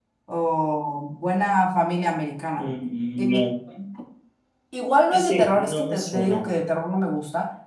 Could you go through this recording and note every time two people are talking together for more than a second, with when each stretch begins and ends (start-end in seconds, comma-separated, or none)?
5.1-6.4